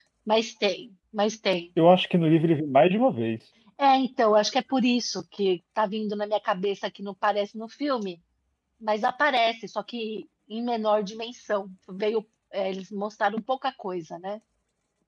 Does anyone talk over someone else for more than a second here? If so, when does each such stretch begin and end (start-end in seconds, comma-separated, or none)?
none